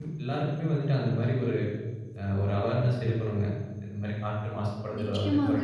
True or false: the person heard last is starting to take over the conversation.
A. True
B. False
A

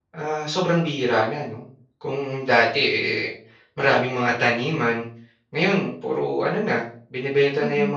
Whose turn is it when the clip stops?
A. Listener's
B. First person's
B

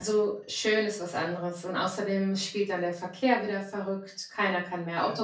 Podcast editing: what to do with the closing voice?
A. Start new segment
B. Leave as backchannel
B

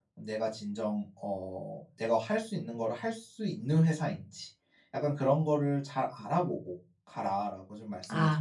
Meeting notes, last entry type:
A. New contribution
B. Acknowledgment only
A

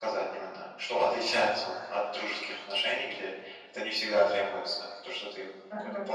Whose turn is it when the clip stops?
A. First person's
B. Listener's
B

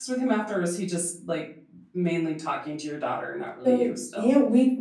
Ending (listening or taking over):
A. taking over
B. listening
A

